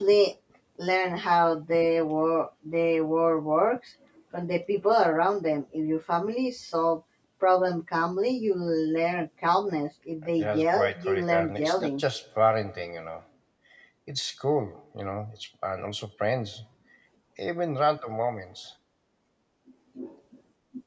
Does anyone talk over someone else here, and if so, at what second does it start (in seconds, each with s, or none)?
10.4 s